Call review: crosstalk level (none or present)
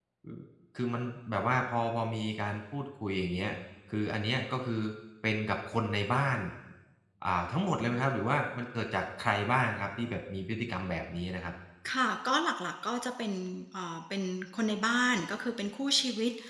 none